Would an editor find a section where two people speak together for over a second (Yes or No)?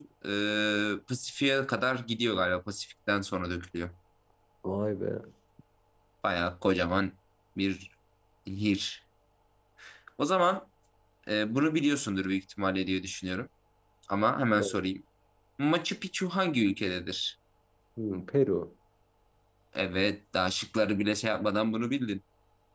No